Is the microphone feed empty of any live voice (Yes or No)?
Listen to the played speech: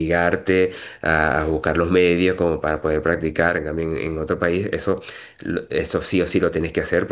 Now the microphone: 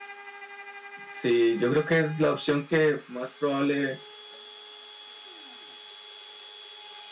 No